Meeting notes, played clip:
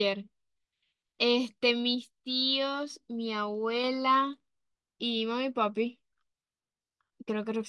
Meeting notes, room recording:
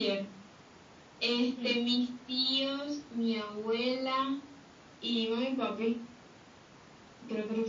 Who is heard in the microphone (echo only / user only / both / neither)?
both